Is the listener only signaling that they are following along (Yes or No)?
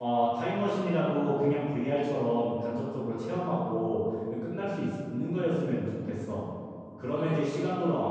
Yes